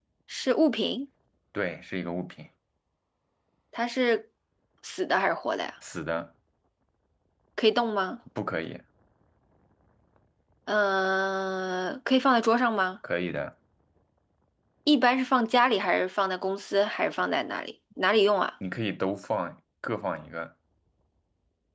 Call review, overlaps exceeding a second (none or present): none